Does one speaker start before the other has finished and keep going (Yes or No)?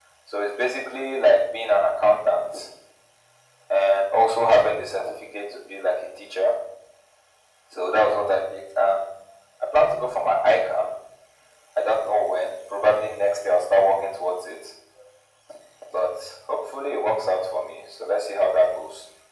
No